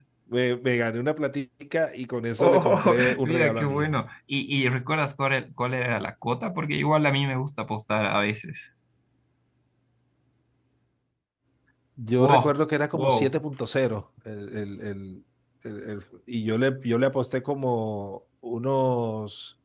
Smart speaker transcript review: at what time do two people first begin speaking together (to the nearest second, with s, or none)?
2 s